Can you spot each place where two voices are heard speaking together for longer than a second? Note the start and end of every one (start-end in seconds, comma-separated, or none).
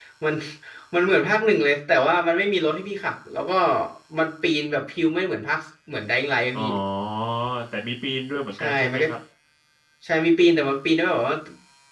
none